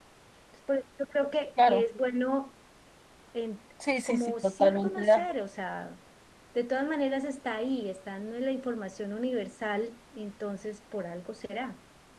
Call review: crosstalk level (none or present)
present